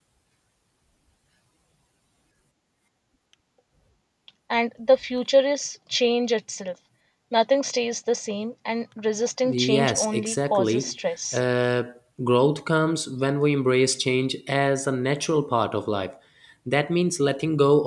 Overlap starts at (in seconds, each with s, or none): 9.4 s